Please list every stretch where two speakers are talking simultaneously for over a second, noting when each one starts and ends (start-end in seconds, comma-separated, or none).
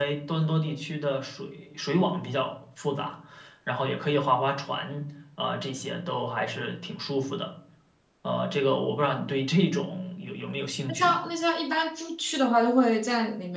none